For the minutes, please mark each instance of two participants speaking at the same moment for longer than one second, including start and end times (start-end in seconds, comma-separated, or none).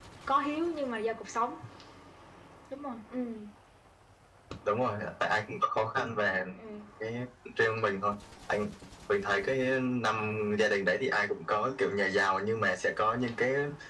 none